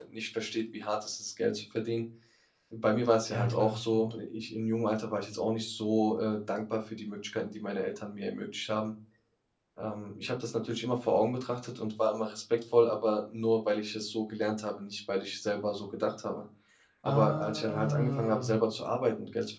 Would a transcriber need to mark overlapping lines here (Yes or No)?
Yes